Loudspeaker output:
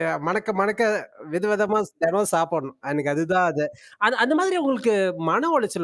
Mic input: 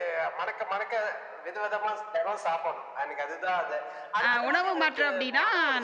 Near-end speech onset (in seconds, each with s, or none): 4.3 s